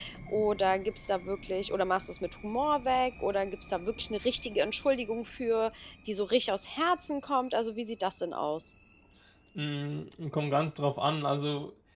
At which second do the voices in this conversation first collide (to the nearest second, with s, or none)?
none